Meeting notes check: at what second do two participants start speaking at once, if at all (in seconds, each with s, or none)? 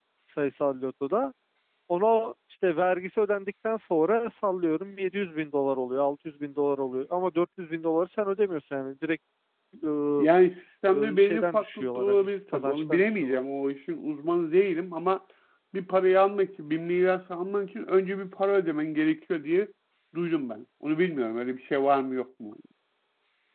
10.9 s